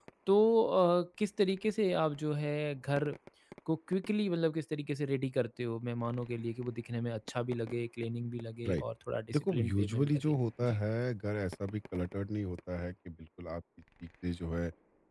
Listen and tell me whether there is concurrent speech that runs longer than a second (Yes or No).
Yes